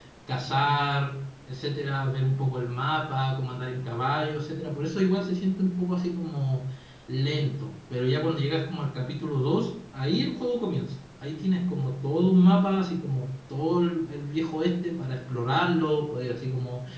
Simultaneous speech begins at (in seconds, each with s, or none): none